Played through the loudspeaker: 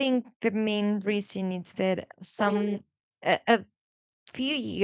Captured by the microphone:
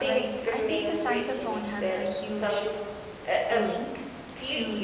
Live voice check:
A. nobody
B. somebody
B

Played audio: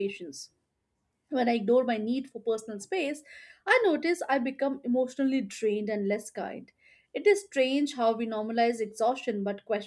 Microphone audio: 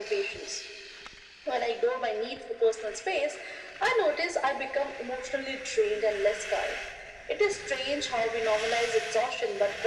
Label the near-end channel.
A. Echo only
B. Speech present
A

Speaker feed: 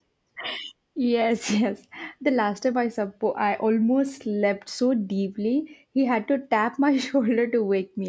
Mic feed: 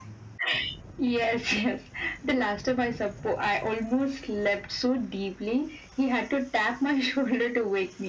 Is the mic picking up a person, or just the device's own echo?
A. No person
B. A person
A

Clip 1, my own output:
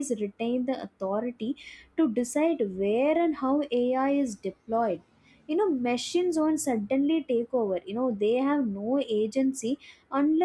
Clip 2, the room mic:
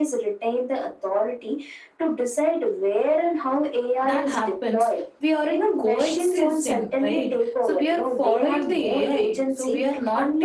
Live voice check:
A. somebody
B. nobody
A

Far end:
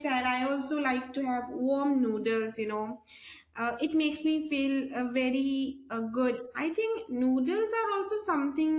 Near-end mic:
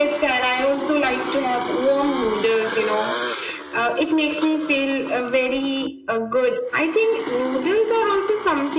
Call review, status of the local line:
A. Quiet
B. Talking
A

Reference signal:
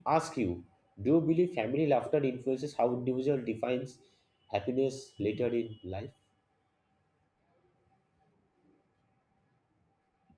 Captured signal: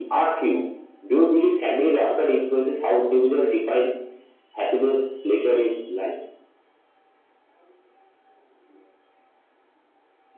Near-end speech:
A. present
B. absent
B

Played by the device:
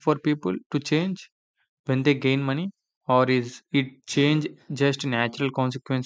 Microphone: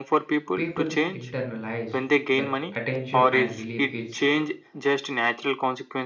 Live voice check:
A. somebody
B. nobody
A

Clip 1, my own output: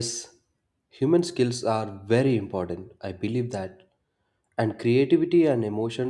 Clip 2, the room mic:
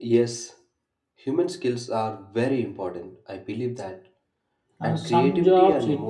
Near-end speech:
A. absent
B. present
B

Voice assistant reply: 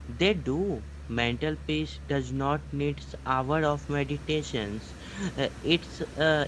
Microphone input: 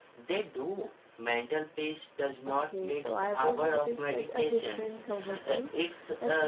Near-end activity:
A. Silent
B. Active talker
B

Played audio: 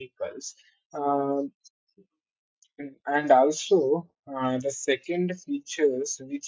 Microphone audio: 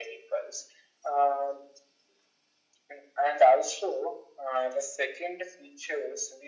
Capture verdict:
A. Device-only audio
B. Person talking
A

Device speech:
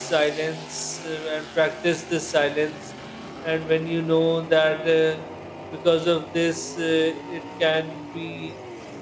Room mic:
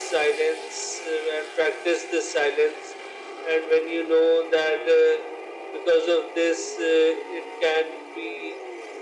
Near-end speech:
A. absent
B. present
A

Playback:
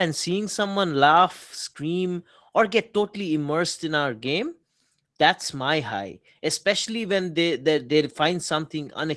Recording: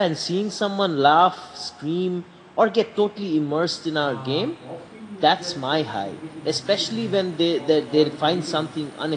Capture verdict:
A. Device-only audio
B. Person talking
B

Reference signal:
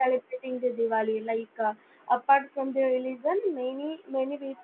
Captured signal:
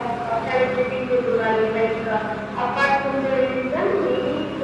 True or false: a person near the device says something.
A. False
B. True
A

